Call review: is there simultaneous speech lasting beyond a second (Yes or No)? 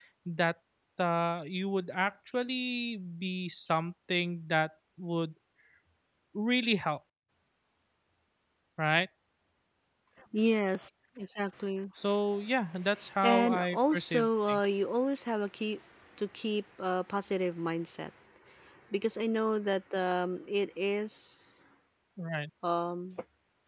Yes